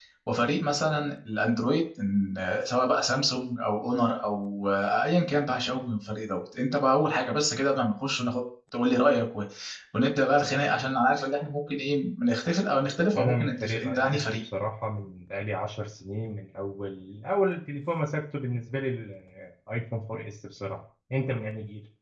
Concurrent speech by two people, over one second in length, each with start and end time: 13.2-14.4

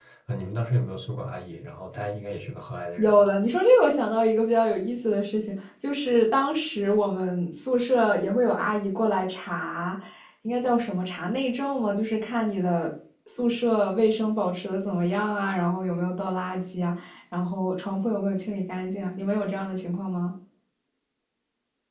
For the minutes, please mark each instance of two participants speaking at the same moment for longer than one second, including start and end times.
none

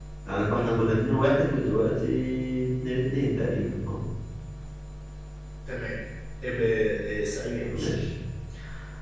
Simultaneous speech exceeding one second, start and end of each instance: none

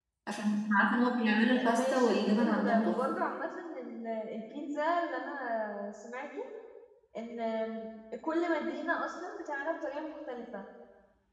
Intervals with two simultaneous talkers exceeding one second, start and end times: 1.8-3.0

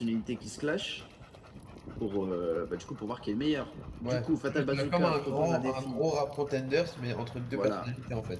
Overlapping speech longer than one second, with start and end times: 4.0-6.0

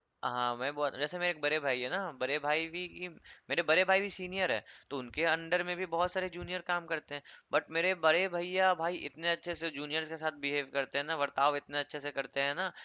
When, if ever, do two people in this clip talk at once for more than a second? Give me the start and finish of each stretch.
none

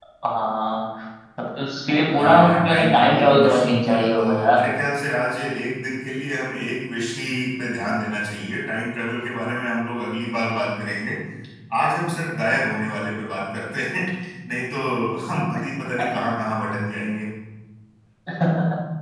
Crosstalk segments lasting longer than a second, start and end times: 2.1-4.7

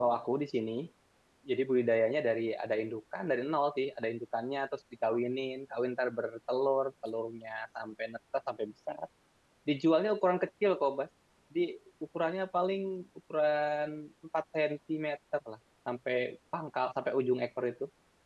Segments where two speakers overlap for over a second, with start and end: none

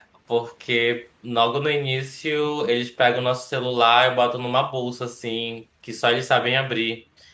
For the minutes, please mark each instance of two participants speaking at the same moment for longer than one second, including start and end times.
none

